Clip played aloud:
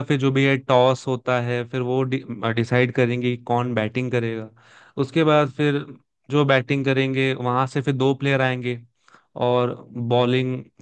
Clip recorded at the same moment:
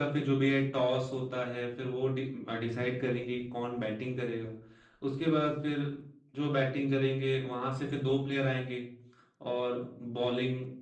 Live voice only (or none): none